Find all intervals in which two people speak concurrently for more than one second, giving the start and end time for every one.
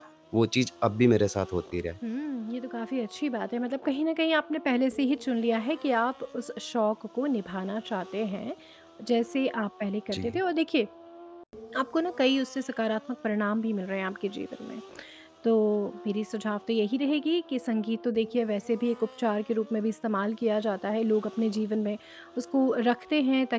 none

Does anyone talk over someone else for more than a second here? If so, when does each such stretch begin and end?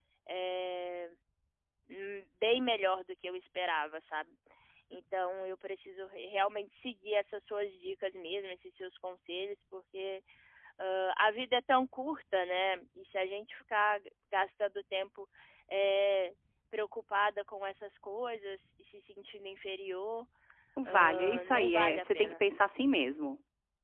20.9-22.4

